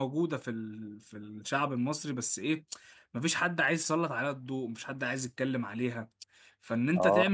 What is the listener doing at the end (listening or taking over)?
listening